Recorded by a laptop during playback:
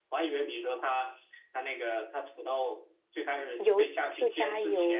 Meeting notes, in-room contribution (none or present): present